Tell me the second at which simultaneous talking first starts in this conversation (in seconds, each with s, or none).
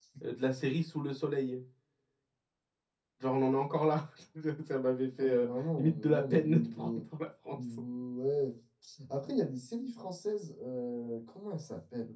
5.2 s